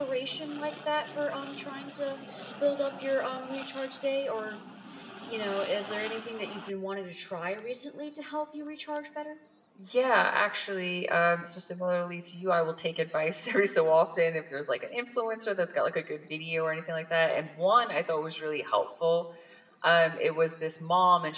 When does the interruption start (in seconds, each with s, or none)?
none